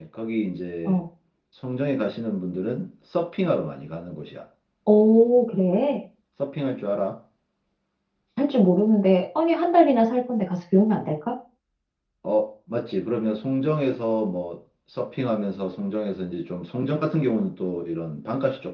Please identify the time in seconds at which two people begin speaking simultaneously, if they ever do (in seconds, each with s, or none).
none